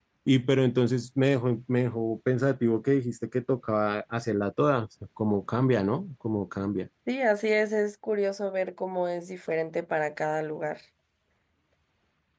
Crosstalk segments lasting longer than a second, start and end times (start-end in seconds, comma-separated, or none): none